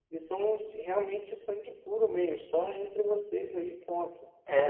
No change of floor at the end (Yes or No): No